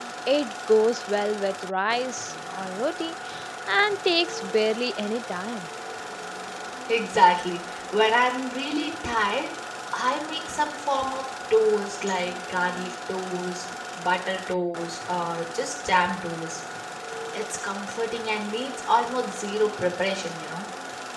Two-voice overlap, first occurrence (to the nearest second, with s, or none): none